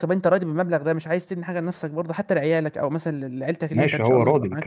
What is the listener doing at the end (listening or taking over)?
taking over